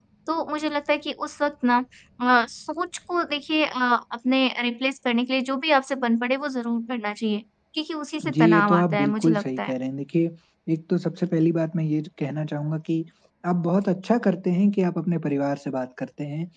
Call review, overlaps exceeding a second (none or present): present